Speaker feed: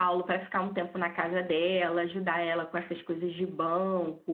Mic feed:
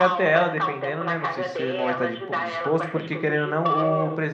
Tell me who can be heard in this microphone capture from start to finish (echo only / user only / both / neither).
both